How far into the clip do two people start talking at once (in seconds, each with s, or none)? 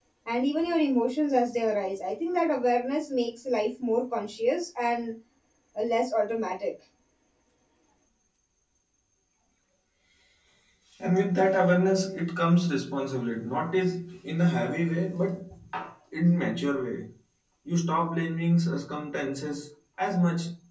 none